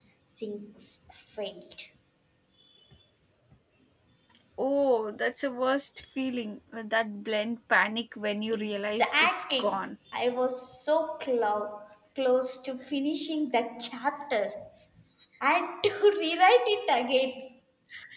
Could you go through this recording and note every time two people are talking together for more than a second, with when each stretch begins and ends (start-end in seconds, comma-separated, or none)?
8.5-9.8